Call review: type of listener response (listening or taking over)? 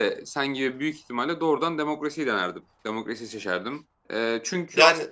listening